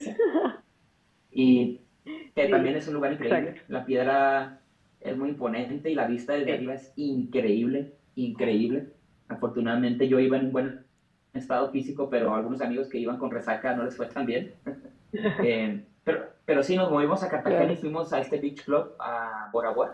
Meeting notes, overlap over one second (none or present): none